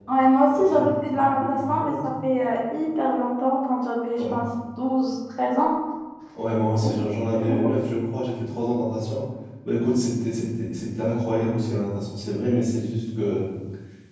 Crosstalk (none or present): present